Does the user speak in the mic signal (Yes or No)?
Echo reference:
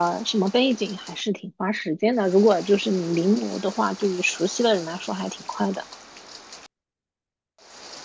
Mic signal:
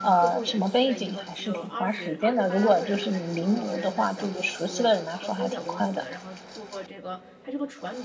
Yes